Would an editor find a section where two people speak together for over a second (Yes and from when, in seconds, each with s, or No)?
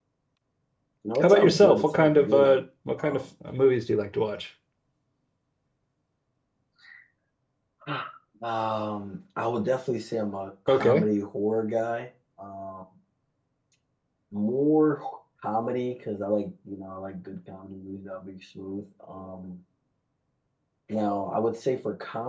Yes, from 1.2 s